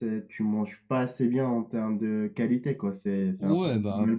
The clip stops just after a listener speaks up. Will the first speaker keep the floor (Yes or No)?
No